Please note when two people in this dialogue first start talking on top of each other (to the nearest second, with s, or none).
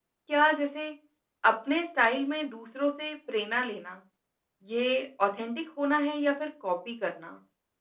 none